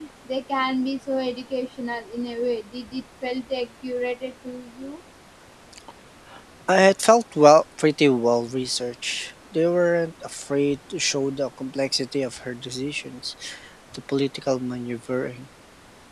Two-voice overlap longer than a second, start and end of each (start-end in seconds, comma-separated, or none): none